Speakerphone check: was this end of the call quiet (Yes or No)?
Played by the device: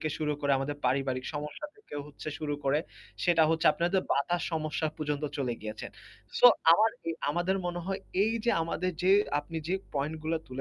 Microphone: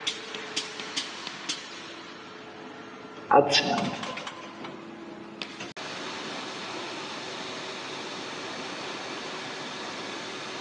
No